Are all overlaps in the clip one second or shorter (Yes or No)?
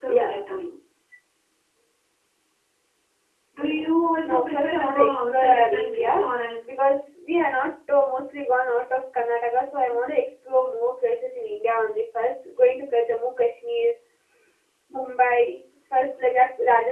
No